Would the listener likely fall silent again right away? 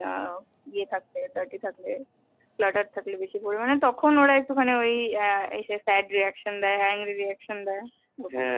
No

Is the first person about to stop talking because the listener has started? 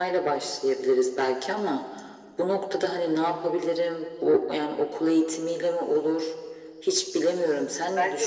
Yes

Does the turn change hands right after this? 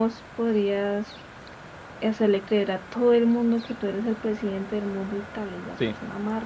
Yes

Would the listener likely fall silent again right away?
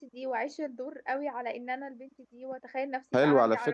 No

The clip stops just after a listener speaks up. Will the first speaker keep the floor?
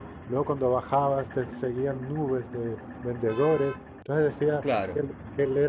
Yes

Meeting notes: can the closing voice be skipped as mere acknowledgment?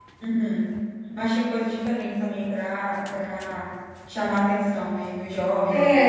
No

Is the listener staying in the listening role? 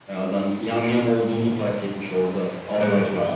No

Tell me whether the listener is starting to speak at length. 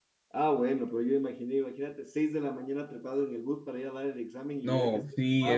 Yes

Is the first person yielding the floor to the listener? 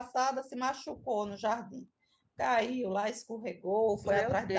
No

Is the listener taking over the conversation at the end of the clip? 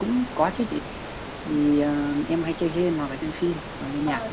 Yes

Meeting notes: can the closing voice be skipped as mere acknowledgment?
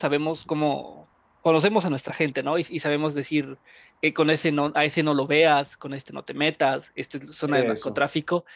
Yes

